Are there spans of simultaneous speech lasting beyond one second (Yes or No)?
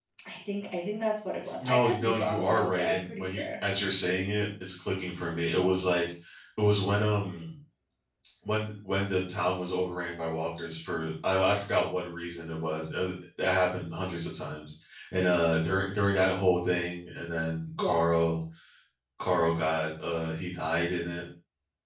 Yes